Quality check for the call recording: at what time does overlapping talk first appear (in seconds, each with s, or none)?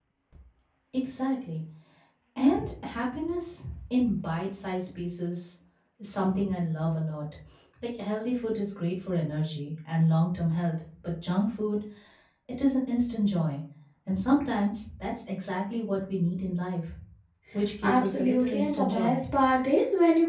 17.8 s